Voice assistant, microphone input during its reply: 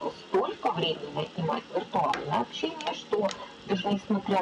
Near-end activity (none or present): none